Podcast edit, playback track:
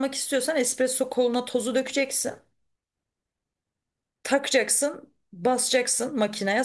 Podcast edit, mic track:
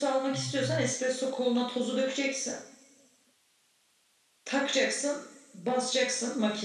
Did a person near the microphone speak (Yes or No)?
Yes